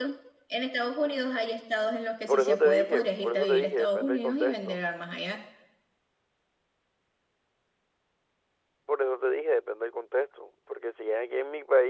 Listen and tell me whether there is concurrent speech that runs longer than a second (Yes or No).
Yes